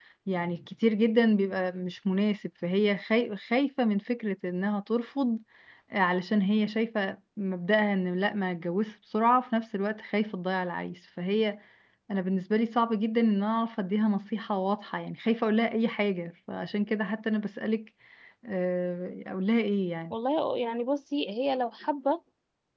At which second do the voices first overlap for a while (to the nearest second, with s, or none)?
none